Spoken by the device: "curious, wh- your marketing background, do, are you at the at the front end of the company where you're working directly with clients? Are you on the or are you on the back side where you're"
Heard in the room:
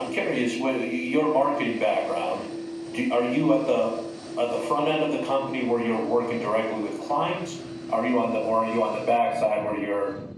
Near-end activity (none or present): none